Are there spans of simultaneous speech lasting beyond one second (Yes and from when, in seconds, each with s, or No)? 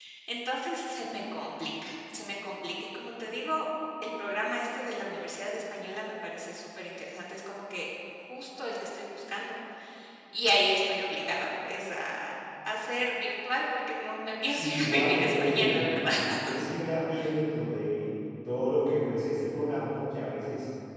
Yes, from 14.5 s